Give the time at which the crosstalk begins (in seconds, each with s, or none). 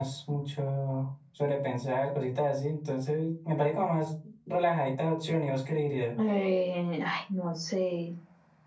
none